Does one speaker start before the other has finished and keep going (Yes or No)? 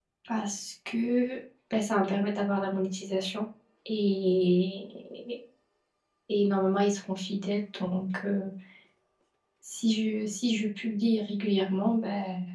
No